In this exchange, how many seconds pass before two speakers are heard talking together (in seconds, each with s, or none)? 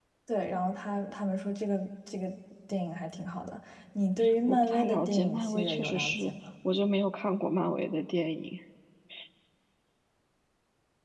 4.5 s